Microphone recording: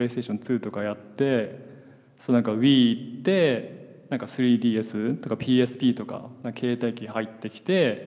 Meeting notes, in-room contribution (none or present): present